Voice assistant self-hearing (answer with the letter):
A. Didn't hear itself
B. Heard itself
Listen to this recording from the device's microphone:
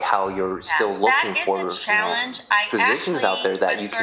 B